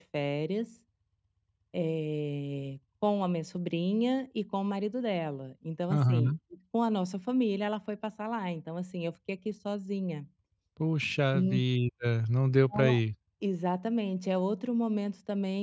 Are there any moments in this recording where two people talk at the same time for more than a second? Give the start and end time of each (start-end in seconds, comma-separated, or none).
none